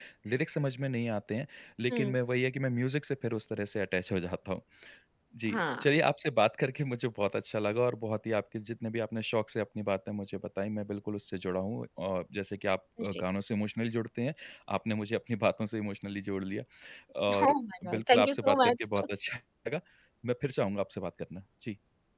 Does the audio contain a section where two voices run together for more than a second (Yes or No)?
Yes